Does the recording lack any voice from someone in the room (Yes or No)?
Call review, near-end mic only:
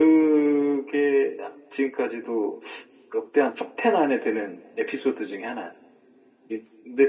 Yes